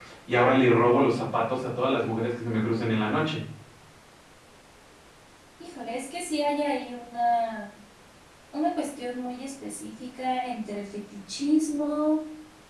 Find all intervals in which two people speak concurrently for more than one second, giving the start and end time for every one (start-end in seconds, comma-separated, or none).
none